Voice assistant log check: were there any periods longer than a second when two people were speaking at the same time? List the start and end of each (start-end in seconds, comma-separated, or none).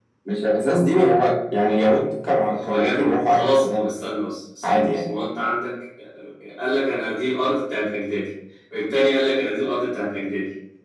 2.4-3.9